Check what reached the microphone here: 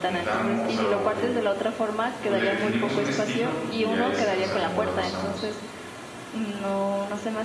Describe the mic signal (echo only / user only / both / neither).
both